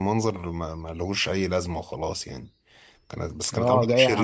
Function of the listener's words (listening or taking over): taking over